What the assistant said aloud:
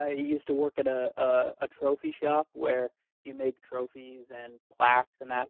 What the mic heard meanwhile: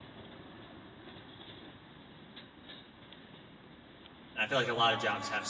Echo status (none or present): none